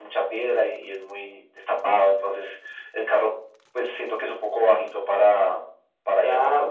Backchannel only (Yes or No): No